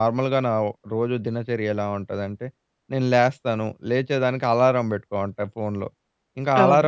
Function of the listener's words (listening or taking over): listening